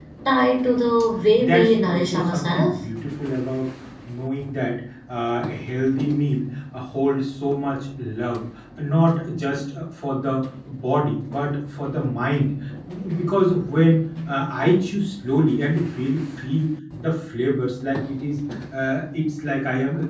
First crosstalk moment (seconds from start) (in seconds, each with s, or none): 1.4 s